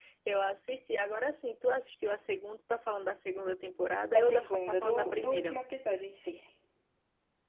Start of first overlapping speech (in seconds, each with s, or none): 4.1 s